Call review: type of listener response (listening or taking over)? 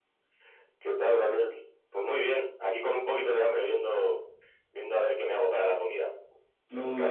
taking over